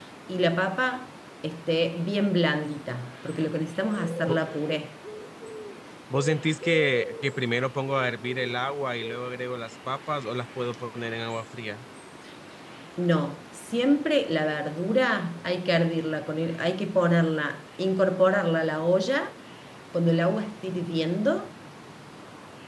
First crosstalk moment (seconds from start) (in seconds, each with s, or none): none